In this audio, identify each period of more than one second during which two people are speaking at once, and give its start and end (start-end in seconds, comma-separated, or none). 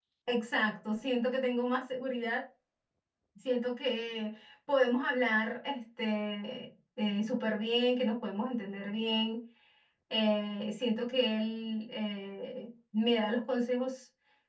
none